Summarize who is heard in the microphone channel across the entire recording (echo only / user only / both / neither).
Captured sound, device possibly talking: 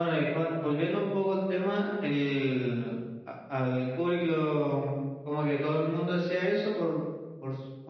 echo only